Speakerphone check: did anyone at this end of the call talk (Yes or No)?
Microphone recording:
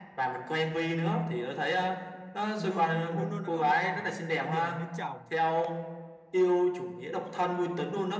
Yes